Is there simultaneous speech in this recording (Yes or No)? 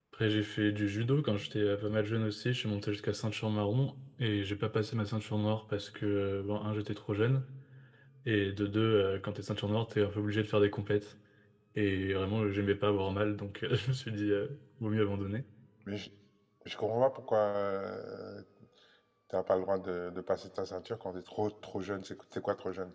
No